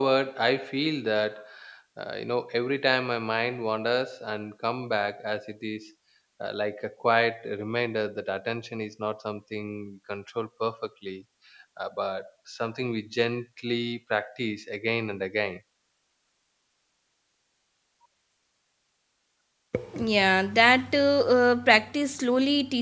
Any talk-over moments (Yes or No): No